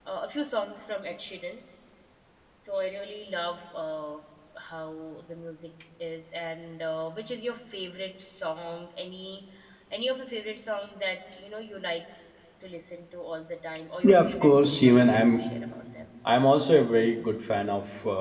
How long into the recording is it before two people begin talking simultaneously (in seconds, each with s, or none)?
14.0 s